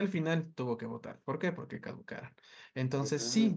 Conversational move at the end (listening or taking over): listening